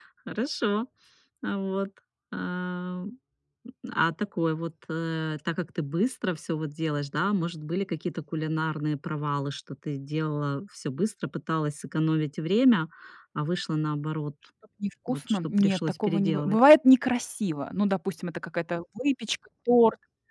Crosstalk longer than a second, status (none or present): present